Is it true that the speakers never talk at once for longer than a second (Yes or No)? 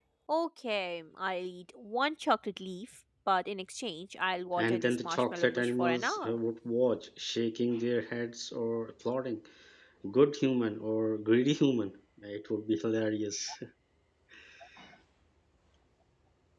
No